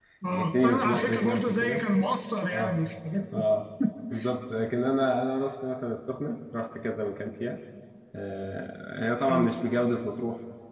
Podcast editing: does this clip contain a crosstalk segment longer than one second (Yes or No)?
Yes